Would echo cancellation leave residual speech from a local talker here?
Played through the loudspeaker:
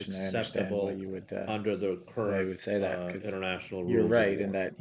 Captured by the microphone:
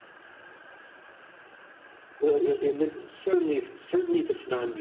Yes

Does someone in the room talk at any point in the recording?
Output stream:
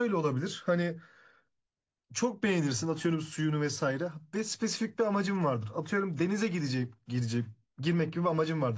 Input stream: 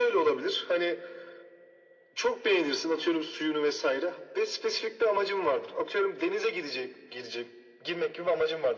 No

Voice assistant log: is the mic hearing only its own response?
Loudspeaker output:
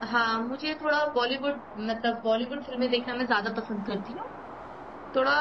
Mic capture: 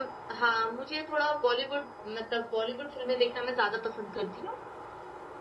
Yes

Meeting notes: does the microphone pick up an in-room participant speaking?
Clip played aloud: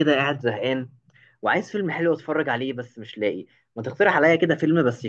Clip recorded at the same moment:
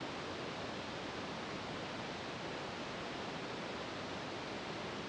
No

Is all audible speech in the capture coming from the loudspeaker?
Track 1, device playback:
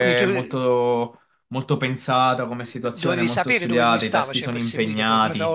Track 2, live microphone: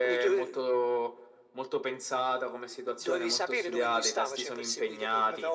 Yes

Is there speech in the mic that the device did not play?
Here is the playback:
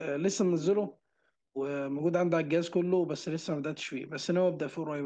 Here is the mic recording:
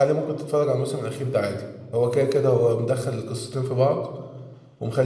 Yes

